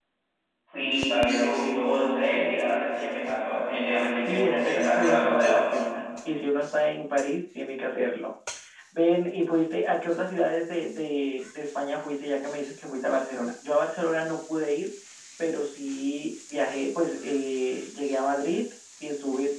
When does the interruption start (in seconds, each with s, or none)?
4.2 s